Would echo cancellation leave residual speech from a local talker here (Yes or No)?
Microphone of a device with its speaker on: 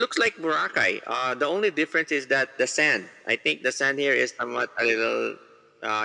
No